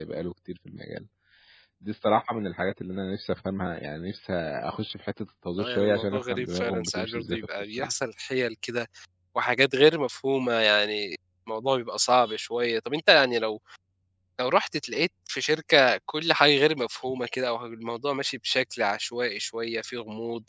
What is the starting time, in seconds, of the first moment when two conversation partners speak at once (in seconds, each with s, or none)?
5.6 s